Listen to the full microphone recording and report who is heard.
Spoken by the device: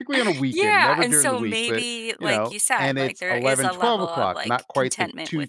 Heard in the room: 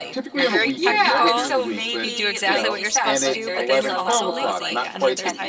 both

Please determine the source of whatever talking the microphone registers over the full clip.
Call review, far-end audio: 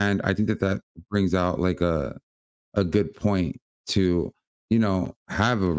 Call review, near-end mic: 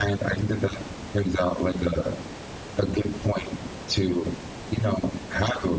echo only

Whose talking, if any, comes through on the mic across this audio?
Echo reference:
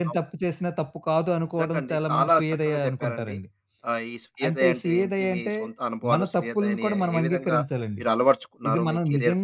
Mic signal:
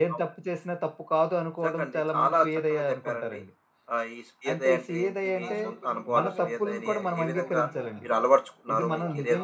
both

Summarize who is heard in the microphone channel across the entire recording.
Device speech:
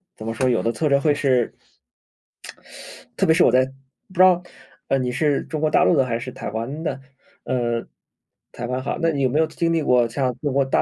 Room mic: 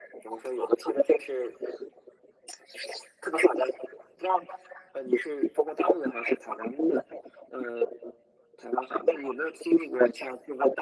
echo only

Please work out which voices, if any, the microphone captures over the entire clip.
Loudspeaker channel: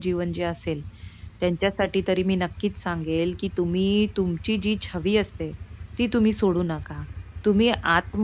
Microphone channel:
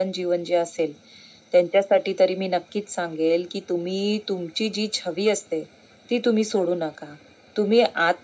echo only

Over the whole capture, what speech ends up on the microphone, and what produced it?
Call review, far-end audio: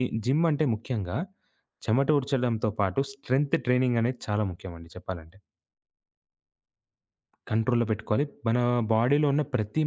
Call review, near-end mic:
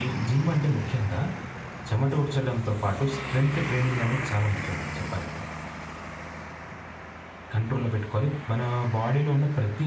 echo only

